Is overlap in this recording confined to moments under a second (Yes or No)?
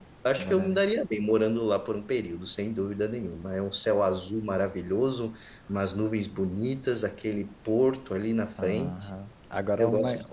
Yes